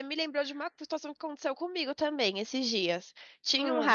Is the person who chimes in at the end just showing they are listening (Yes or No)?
Yes